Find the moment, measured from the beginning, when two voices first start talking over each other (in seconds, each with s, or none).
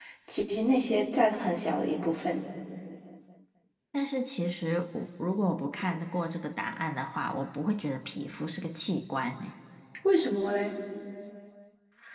none